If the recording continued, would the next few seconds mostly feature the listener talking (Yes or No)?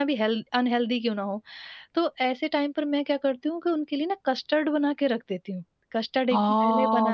Yes